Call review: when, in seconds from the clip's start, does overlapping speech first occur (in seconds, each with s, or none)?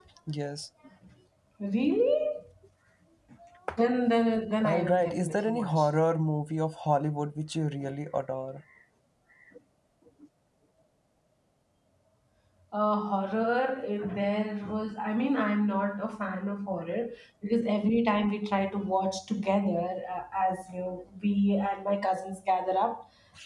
4.6 s